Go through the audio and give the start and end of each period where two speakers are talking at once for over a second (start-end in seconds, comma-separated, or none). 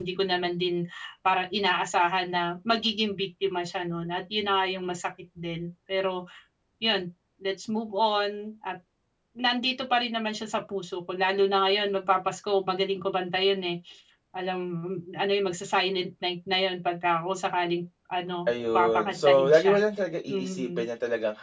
18.5-19.8